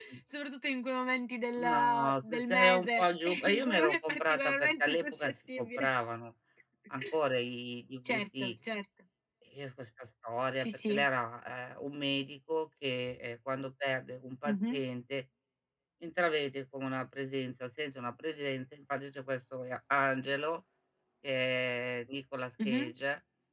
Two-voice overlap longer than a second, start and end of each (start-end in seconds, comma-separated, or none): 1.6-5.9